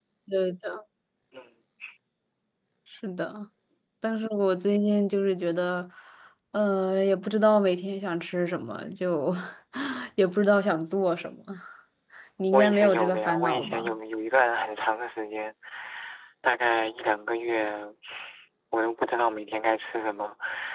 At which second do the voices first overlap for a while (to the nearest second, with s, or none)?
13 s